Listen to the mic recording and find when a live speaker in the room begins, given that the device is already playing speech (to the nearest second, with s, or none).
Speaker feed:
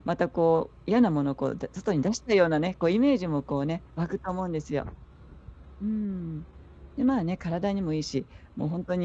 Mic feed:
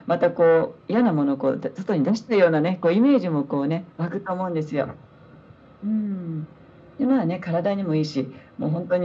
none